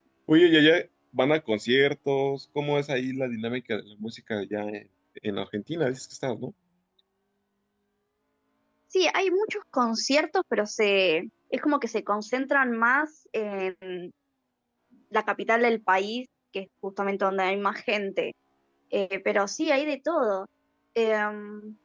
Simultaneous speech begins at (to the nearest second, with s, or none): none